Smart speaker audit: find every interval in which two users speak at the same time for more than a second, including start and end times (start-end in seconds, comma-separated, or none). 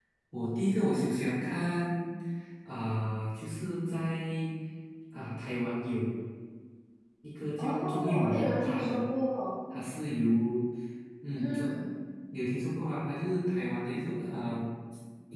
7.6-9.0